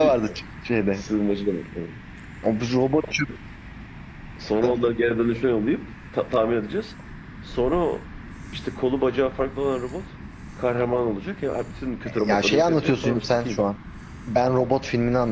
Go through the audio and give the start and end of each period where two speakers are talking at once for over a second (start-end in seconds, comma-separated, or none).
12.3-13.7